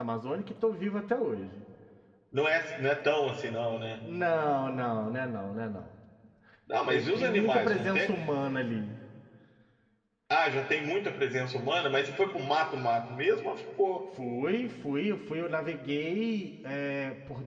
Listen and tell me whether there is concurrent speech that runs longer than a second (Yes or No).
Yes